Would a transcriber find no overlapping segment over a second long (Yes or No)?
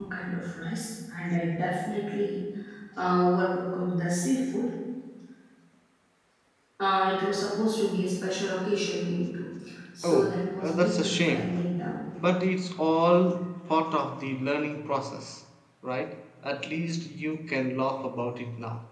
No